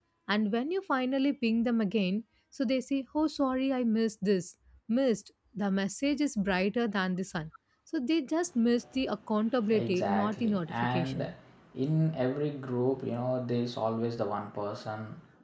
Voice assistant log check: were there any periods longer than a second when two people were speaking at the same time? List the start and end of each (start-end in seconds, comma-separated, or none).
9.7-11.3